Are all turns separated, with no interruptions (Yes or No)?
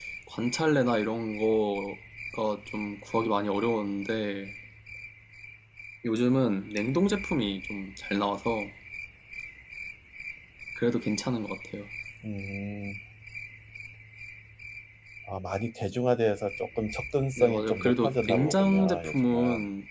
No